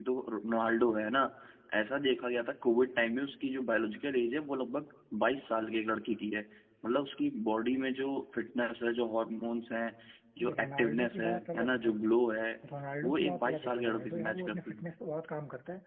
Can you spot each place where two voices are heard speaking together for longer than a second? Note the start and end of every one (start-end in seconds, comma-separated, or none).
10.4-11.9, 13.0-14.9